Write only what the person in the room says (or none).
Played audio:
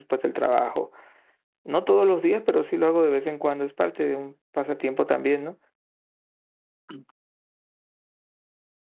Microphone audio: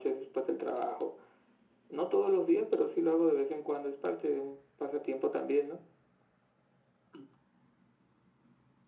none